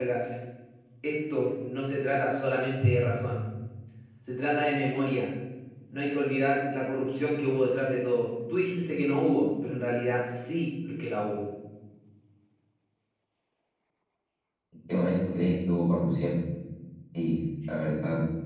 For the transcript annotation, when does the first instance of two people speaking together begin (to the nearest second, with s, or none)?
none